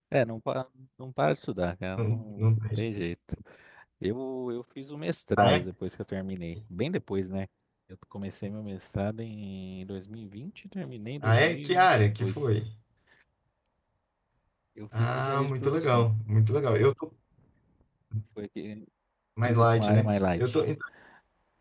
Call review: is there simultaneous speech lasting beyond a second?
Yes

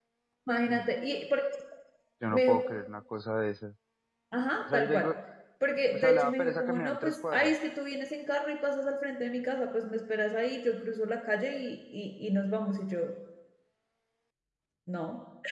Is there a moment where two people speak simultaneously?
Yes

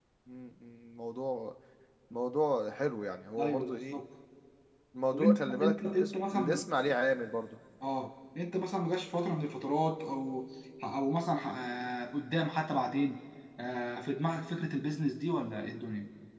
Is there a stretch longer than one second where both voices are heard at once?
Yes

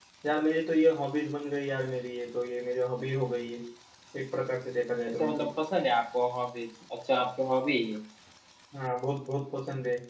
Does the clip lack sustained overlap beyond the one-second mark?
Yes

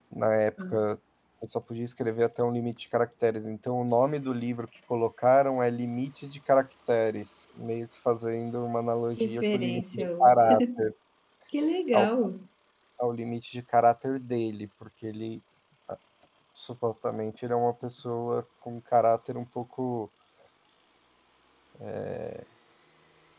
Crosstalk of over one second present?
Yes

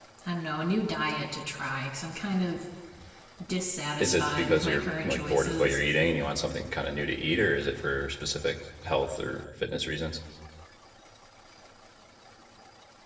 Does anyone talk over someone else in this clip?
Yes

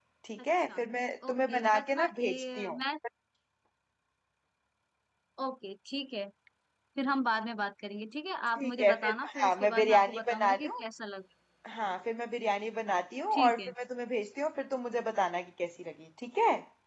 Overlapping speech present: Yes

